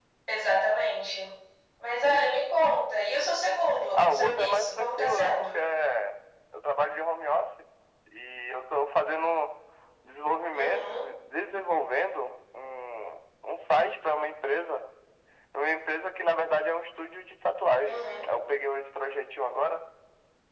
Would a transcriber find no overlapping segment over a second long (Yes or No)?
No